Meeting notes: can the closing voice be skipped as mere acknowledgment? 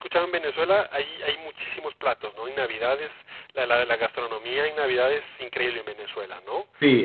No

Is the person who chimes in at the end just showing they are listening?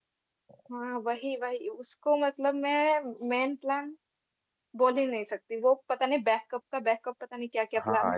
No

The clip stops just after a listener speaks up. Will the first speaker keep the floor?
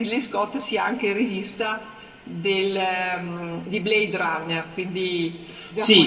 No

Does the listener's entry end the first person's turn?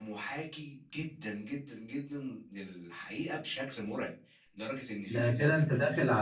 Yes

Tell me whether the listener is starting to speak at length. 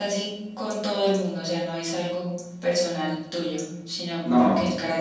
No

